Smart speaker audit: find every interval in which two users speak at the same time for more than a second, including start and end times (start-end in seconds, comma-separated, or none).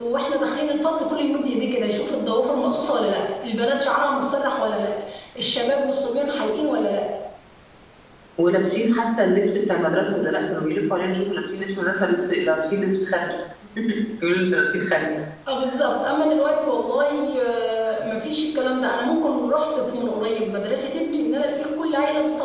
none